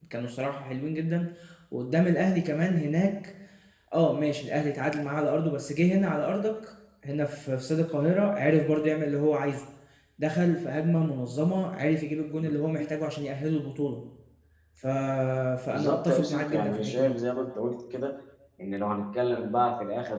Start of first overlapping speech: 15.7 s

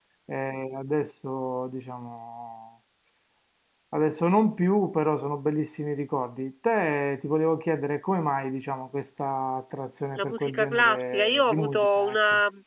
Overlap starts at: 10.2 s

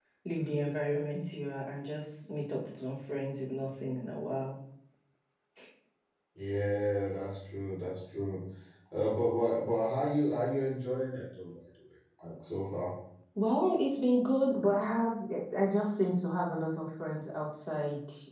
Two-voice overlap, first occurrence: none

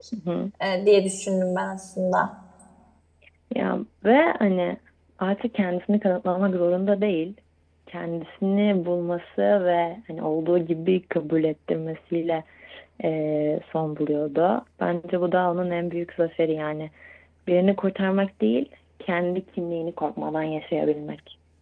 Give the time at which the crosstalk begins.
none

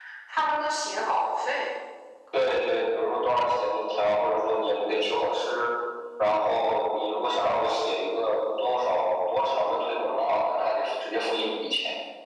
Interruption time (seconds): none

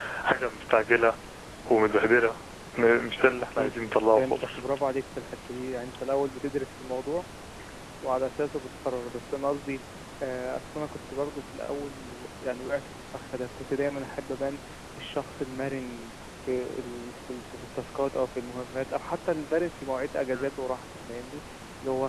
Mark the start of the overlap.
3.2 s

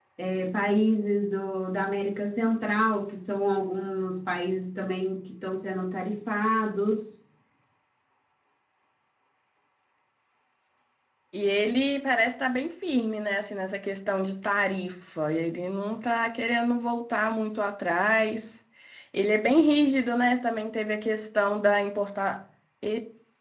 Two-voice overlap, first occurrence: none

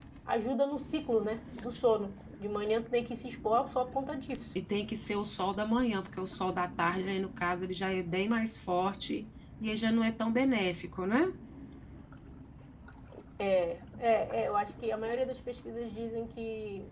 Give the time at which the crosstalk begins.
none

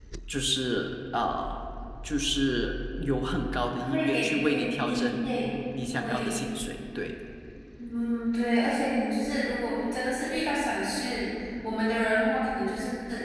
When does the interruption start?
3.8 s

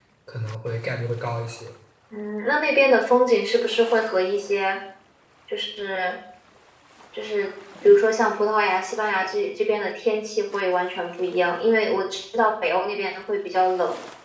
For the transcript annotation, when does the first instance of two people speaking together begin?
none

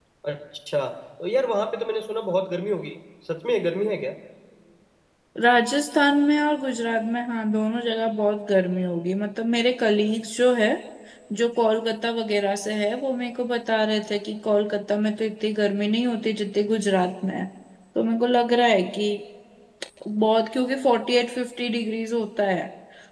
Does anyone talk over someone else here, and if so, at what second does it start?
none

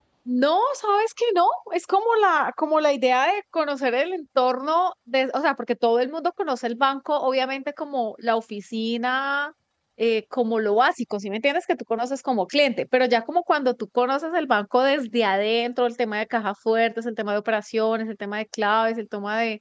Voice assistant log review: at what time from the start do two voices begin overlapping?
none

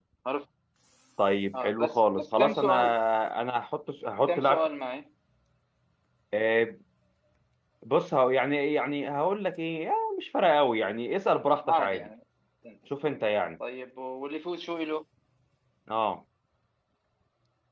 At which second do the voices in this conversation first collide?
1.5 s

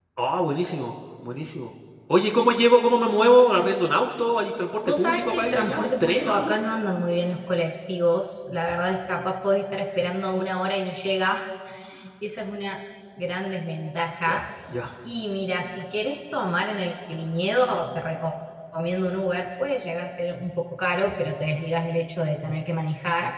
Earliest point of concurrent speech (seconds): 4.8 s

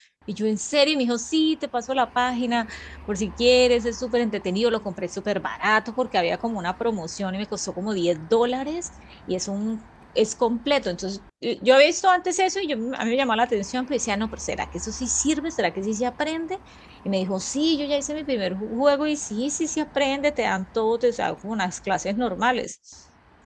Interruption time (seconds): none

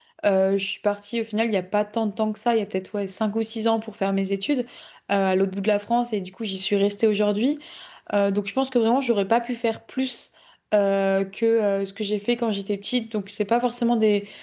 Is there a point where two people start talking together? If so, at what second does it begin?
none

